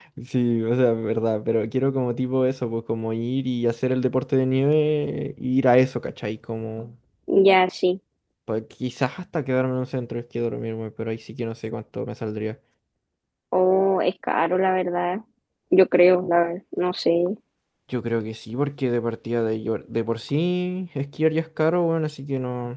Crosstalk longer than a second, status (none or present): none